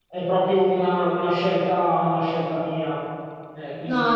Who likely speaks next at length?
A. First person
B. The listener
B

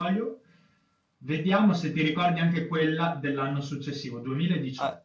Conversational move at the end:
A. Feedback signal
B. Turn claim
B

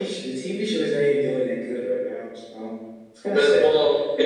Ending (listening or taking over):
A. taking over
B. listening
A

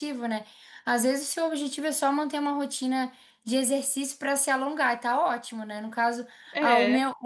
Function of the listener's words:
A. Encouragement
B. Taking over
A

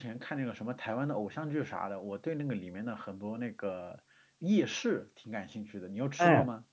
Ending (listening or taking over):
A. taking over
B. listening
A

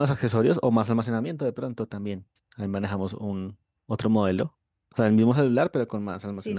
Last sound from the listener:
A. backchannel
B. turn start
B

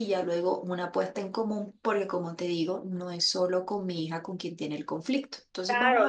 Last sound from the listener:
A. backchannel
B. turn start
B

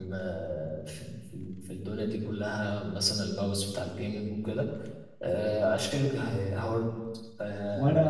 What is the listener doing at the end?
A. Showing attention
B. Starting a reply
B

